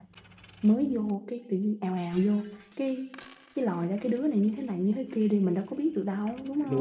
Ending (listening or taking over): taking over